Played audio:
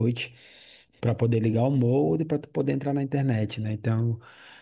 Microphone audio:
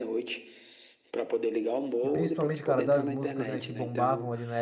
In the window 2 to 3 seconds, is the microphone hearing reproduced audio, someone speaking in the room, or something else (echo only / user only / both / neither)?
both